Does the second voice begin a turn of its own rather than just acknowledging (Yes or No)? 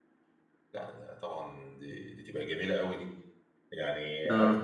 Yes